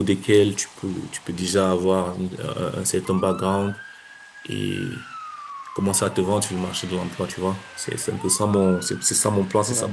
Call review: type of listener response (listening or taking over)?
taking over